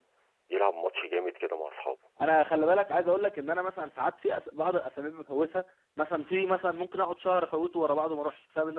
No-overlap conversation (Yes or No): Yes